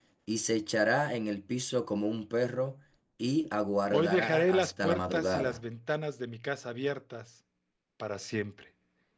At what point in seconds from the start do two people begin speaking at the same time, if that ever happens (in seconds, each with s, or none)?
3.9 s